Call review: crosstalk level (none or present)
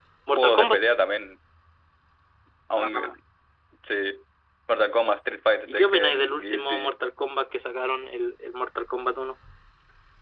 present